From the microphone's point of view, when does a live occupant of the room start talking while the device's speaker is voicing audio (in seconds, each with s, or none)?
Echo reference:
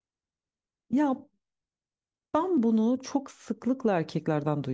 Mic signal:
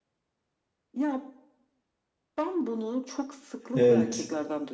3.7 s